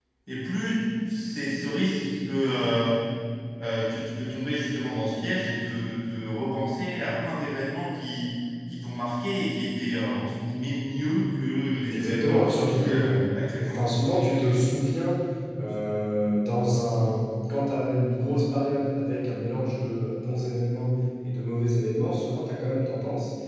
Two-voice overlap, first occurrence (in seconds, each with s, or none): 11.9 s